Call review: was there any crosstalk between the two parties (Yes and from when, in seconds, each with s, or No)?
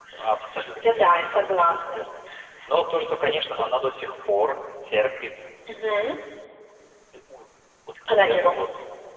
Yes, from 0.8 s